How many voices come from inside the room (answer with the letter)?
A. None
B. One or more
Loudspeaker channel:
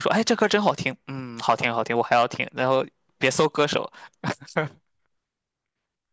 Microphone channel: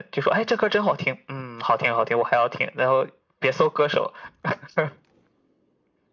A